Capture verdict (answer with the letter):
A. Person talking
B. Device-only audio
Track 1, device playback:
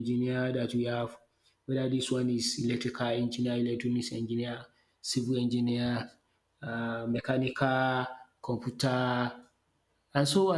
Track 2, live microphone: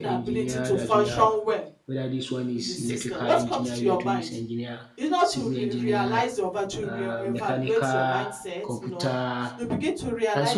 A